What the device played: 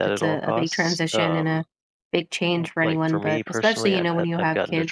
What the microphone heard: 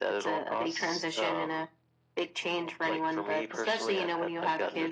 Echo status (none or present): present